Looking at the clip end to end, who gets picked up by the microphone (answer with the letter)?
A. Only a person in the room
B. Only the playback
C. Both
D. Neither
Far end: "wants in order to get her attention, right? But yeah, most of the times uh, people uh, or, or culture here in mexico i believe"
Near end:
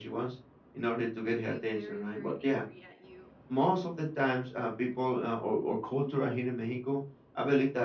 C